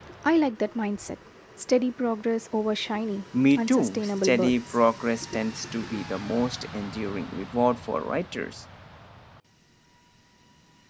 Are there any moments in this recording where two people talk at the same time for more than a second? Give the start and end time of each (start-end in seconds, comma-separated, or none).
3.5-4.8